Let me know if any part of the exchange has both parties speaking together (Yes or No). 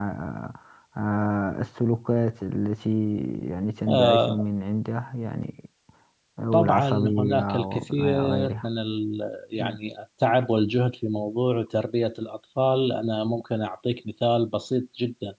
Yes